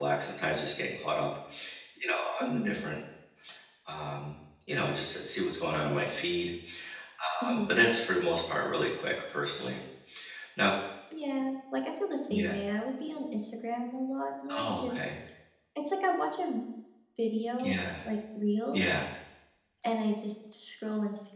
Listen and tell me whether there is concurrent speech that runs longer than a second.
No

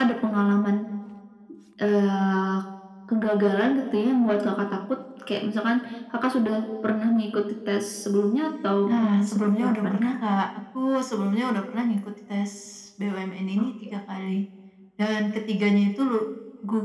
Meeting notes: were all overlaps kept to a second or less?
No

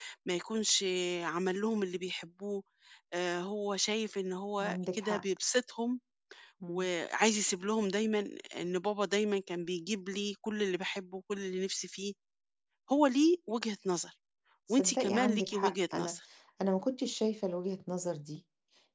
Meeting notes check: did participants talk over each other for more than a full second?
Yes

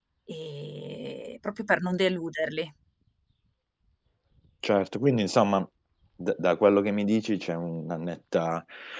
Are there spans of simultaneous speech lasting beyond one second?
No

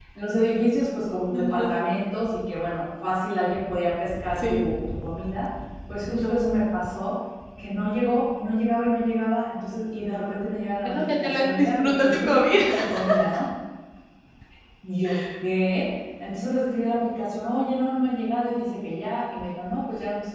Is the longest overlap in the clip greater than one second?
Yes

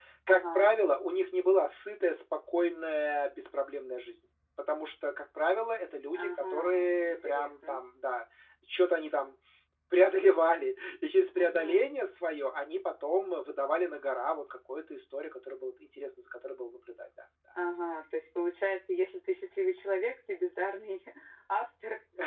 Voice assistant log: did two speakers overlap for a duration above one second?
Yes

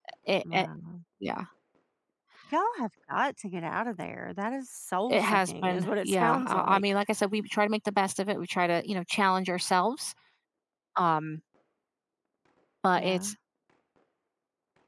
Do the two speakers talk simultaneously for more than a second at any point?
Yes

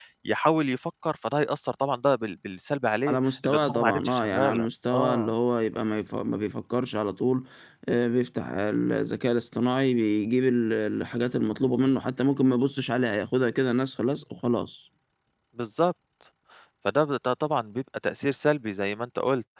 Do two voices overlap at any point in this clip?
Yes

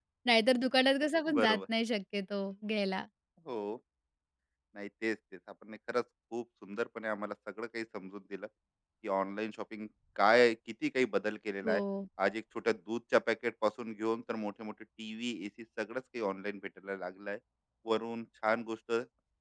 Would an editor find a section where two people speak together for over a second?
No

